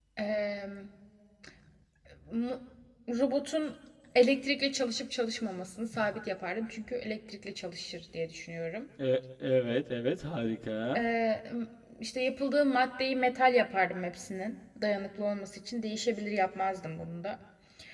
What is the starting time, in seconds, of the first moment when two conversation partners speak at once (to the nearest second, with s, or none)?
none